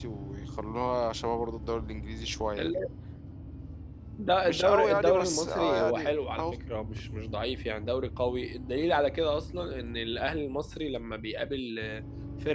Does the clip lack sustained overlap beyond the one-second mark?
No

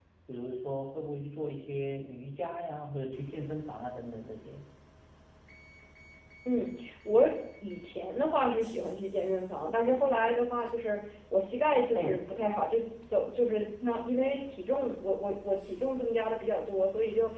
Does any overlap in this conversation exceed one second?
No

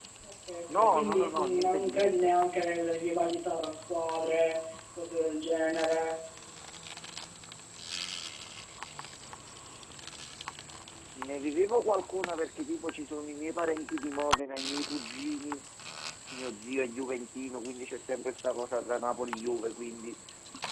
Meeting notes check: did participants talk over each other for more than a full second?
Yes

